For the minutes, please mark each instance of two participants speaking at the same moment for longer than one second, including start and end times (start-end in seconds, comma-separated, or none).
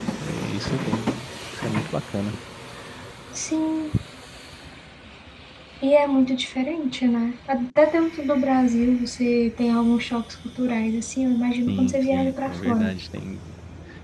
11.7-12.9